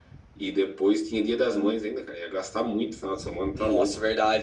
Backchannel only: No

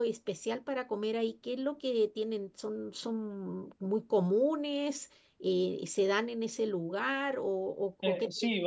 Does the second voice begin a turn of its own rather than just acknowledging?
Yes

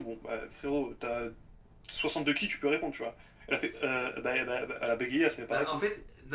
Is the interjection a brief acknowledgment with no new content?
No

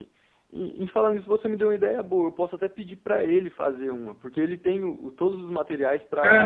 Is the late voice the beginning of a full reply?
Yes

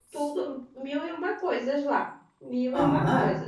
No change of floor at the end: No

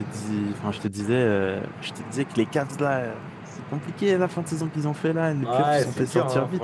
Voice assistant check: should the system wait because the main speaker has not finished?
No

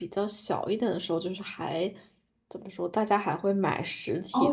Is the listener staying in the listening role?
No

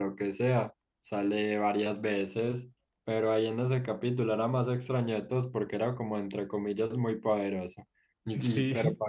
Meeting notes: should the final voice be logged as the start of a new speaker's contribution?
No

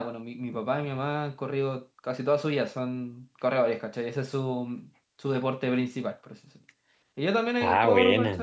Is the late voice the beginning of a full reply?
No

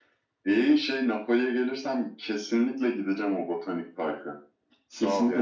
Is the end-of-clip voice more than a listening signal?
Yes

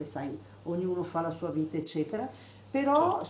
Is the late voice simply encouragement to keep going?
Yes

